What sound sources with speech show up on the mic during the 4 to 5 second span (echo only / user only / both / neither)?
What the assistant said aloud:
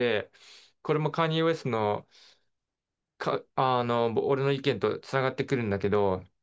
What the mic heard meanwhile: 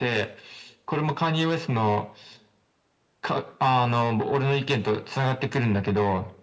echo only